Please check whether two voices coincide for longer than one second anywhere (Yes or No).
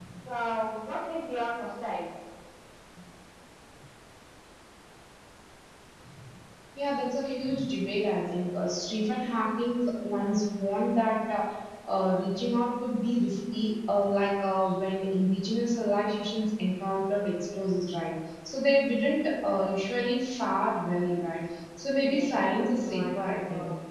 Yes